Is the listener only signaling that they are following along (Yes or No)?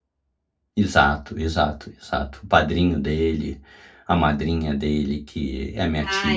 No